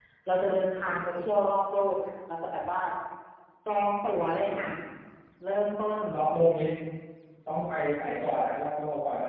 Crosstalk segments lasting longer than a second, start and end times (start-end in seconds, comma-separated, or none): none